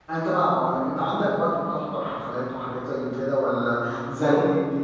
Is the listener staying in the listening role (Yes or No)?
Yes